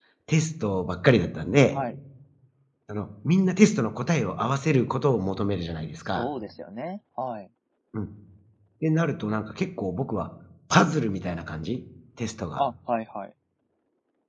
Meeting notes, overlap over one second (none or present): none